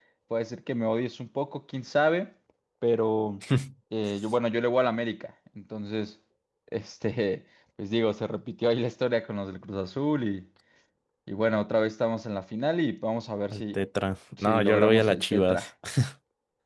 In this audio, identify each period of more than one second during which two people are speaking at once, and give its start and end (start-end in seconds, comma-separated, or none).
14.4-15.7